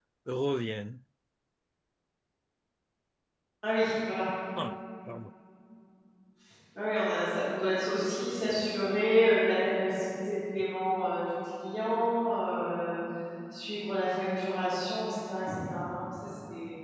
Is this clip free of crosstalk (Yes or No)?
Yes